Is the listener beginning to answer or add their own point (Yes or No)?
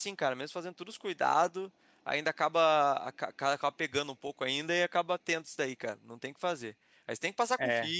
No